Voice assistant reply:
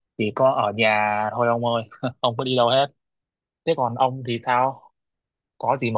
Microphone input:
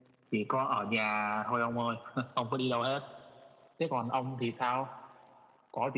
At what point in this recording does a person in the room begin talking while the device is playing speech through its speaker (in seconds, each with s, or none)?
none